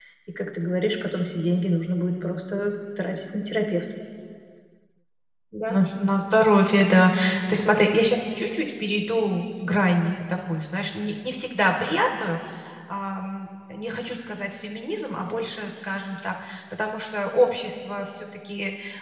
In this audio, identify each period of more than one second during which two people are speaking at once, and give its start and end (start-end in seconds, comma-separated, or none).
none